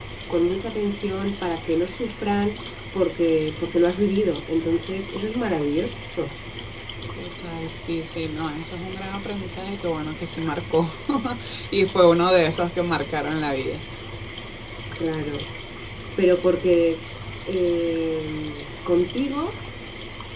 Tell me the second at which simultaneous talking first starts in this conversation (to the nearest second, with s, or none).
none